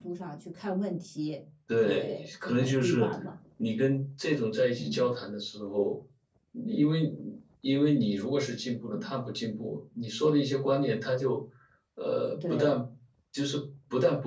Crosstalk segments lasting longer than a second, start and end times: 1.8-3.1

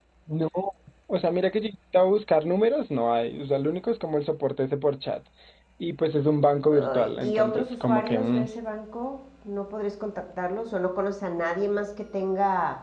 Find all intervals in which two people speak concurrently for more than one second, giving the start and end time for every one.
6.7-8.5

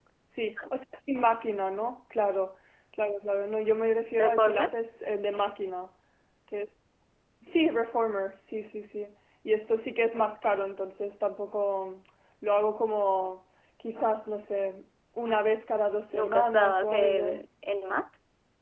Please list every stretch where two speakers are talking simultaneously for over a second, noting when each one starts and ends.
16.1-17.4

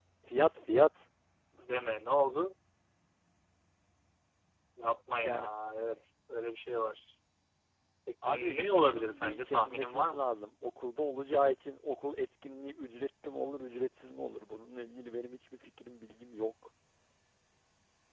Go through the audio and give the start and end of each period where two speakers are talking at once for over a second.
8.2-10.3

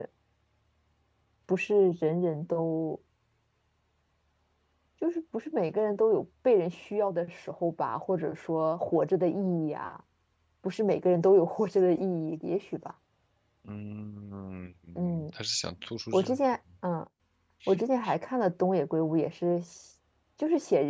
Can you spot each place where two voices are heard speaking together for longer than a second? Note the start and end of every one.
none

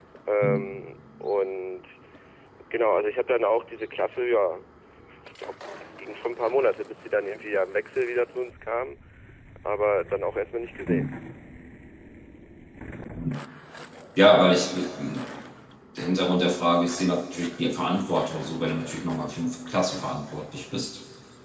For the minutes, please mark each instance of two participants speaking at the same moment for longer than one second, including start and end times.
none

